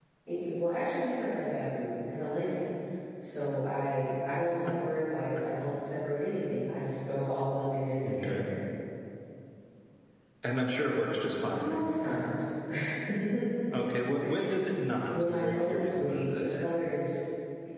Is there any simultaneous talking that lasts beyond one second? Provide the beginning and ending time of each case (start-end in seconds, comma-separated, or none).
15.2-16.6